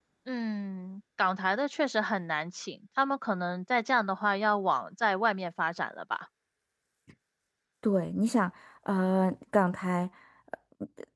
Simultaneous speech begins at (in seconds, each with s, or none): none